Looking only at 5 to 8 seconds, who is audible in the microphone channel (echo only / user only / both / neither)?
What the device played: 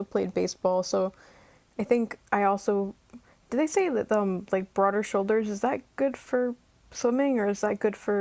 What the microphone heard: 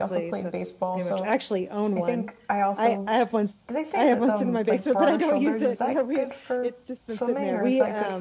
both